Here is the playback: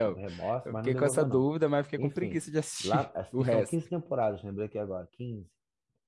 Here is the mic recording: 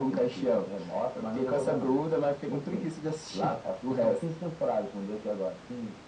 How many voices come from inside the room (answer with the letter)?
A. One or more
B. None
B